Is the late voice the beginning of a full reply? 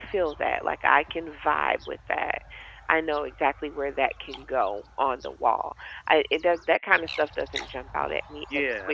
Yes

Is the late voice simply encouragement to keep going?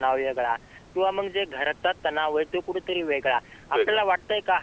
Yes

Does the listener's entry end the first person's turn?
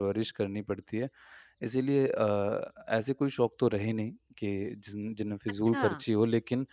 No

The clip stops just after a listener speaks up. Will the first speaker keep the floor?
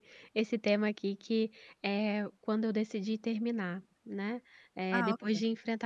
Yes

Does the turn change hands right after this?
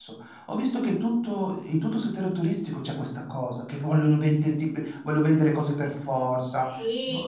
Yes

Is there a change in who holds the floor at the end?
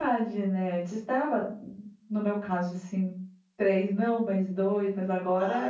Yes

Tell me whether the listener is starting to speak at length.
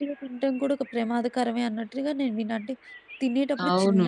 No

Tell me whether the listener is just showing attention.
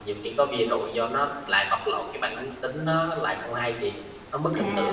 No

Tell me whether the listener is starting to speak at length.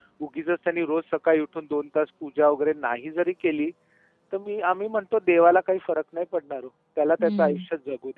No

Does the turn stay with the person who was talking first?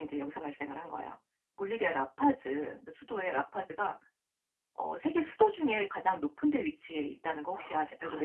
No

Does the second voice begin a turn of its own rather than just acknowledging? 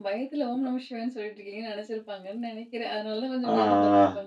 Yes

